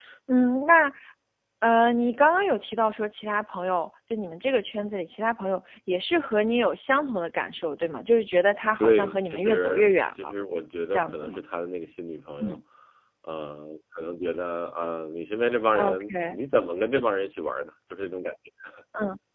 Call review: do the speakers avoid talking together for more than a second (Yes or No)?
No